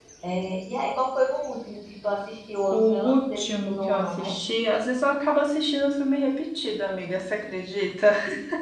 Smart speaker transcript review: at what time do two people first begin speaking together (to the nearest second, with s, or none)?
3 s